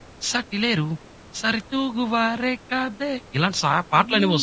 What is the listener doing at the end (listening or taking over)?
taking over